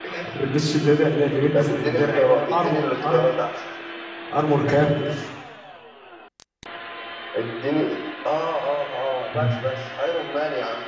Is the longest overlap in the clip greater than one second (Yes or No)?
Yes